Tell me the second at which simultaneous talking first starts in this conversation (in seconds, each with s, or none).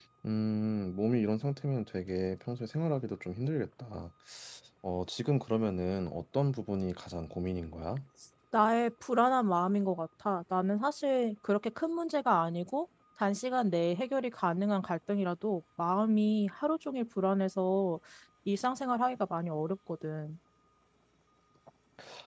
none